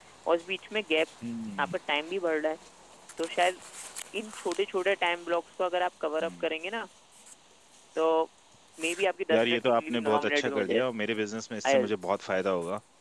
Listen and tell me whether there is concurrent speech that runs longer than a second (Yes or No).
Yes